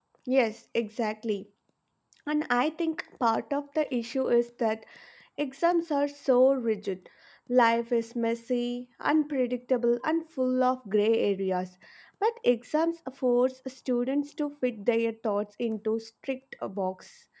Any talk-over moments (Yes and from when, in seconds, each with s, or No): No